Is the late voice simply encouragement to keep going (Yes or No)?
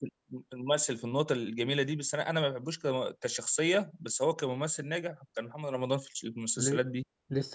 No